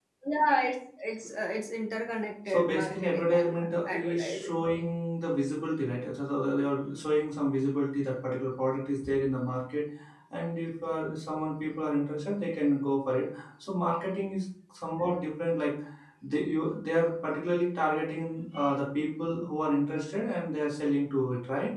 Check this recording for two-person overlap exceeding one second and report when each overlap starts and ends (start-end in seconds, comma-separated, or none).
2.5-4.6